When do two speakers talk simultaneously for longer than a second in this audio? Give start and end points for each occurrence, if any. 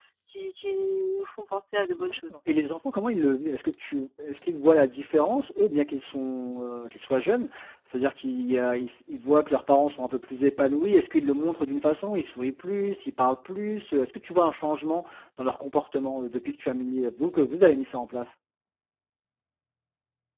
none

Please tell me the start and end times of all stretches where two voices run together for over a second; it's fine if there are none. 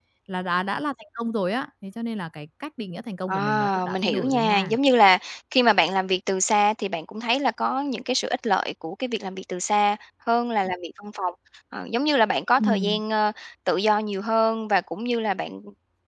3.3-4.8

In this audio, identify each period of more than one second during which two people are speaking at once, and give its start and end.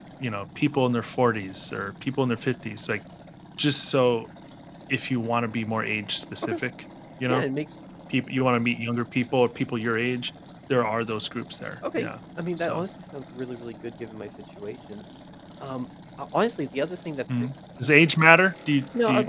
none

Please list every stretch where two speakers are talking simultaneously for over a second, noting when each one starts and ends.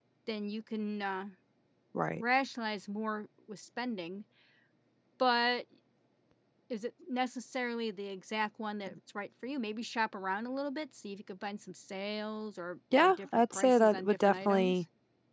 13.0-14.8

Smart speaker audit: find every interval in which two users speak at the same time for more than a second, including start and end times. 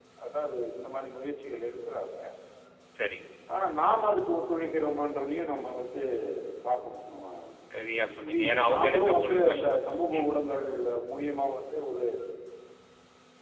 8.3-9.6

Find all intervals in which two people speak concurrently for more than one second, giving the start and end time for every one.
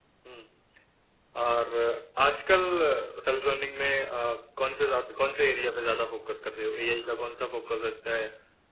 none

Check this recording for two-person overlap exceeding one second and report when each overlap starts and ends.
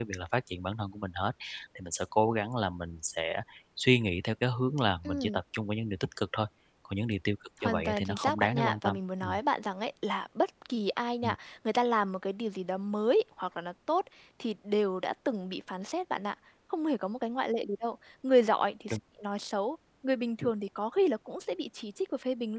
7.6-9.3

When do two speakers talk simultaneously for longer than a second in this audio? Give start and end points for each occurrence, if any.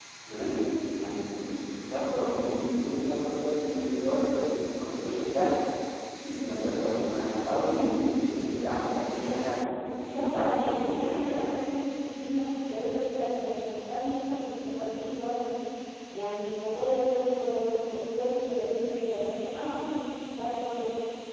10.0-11.5

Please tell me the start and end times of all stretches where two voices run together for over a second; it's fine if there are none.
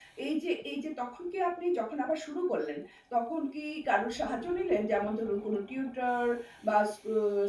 none

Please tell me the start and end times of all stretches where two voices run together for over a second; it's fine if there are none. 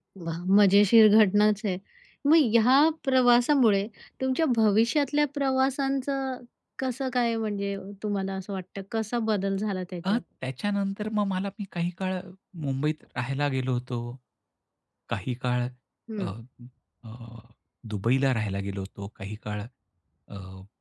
none

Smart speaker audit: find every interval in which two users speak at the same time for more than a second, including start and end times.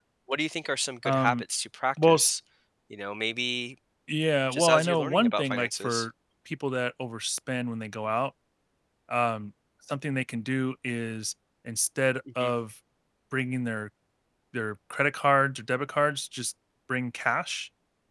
4.5-6.1

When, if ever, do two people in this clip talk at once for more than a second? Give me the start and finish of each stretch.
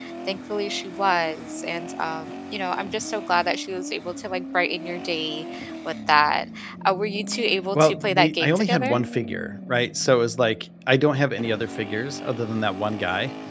7.7-9.0

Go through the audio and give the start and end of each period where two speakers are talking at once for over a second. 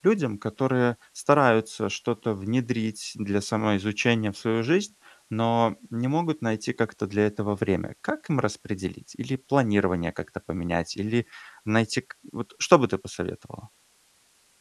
none

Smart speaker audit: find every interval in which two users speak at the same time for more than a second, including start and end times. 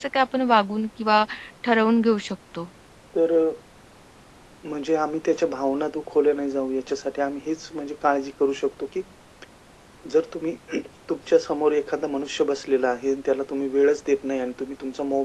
none

